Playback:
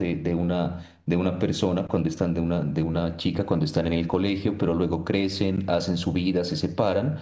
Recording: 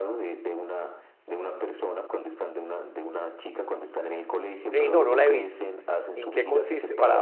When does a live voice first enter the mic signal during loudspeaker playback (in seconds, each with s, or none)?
4.7 s